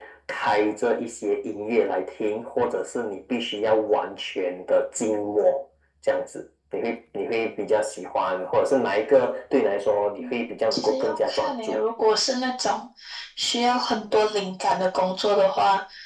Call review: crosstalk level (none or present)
present